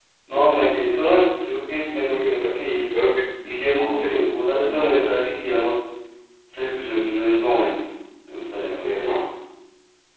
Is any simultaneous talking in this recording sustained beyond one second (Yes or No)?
Yes